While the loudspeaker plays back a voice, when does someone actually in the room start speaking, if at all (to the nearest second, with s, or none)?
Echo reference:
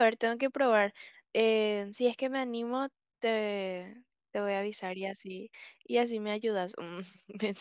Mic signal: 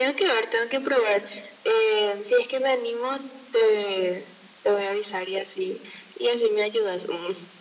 none